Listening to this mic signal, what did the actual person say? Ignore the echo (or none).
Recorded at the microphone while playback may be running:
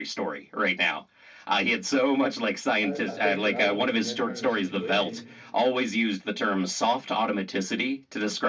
I, I think what I would do in that kind of situation